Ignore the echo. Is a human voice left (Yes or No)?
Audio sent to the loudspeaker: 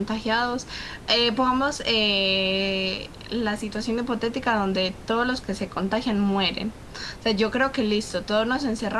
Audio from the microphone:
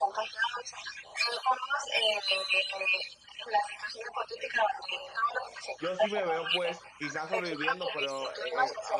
Yes